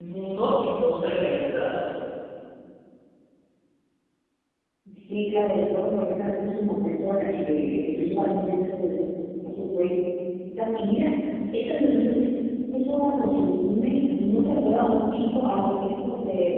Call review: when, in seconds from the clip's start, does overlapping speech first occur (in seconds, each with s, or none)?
none